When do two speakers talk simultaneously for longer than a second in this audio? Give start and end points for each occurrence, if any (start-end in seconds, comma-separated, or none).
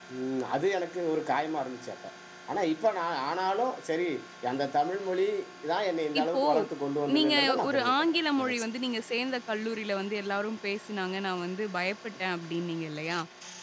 7.2-8.7